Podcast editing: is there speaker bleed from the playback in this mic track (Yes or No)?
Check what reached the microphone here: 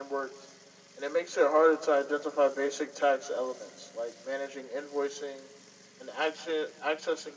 Yes